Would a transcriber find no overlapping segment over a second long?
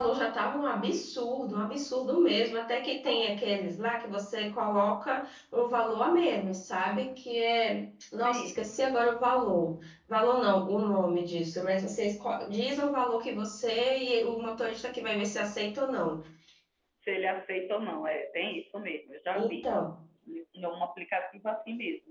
Yes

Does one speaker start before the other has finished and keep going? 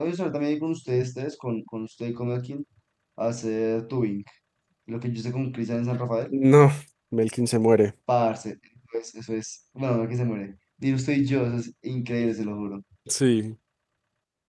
No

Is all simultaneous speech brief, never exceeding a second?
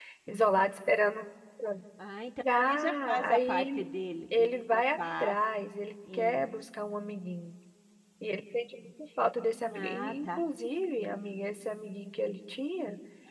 No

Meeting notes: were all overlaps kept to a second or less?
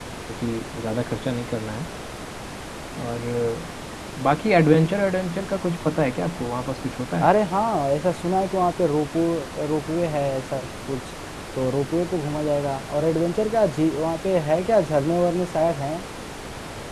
Yes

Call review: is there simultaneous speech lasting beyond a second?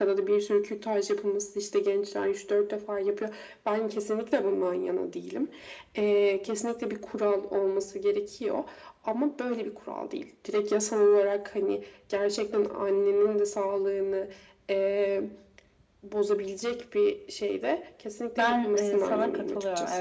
Yes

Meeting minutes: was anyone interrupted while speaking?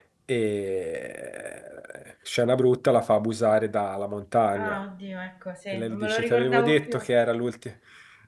Yes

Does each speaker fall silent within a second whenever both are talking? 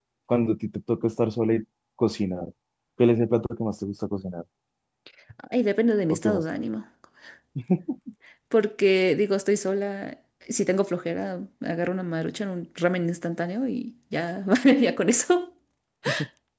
Yes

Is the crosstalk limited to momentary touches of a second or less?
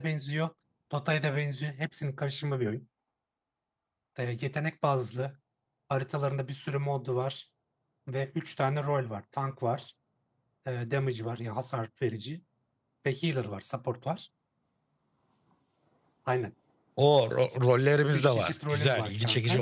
No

